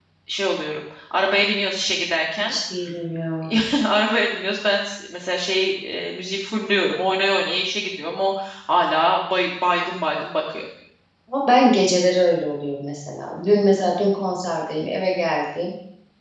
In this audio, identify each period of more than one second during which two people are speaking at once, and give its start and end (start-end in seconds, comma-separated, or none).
none